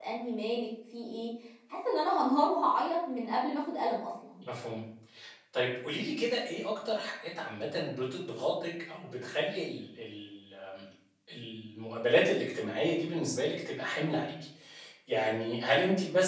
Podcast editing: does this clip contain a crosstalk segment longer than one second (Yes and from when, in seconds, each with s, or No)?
No